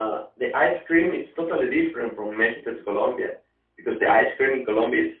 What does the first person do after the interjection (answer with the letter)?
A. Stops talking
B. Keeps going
B